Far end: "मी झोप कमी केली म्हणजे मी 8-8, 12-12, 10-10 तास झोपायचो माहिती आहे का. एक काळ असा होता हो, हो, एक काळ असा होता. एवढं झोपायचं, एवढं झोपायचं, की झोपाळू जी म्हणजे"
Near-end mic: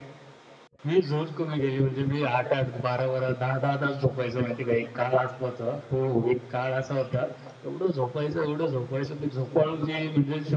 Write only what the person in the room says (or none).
none